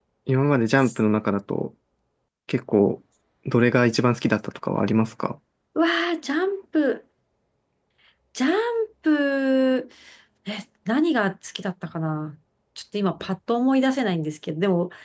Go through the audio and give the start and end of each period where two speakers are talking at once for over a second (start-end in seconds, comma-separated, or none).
none